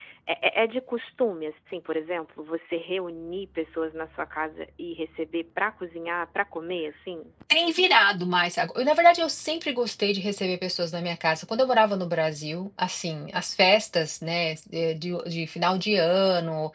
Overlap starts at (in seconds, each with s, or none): none